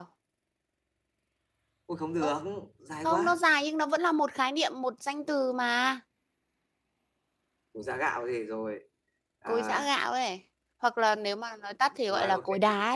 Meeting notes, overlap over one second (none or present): none